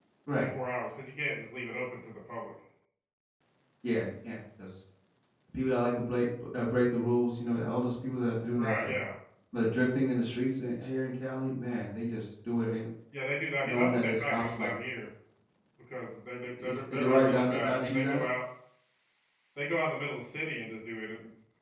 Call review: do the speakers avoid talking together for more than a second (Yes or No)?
No